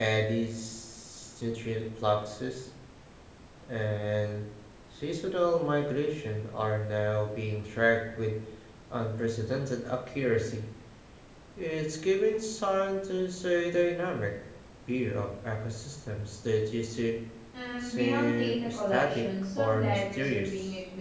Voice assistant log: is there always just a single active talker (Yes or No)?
No